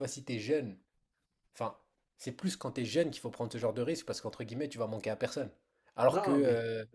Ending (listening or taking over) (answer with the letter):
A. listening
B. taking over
A